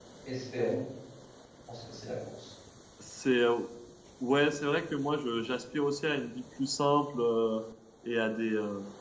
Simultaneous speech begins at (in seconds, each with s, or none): none